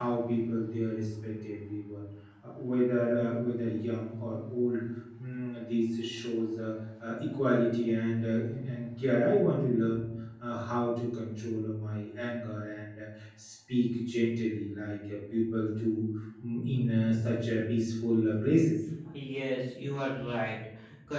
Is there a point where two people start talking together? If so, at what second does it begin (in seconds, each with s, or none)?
none